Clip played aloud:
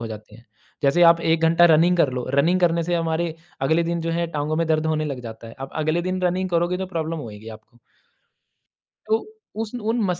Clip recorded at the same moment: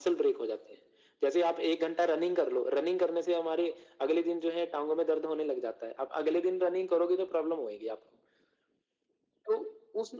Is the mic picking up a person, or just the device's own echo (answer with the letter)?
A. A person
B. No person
B